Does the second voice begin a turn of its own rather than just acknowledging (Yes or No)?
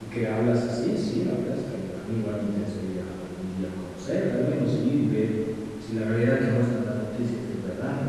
Yes